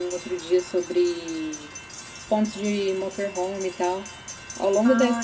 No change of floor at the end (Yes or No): Yes